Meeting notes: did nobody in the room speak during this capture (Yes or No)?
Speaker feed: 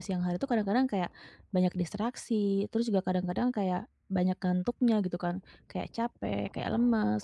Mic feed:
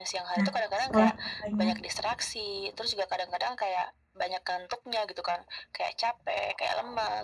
No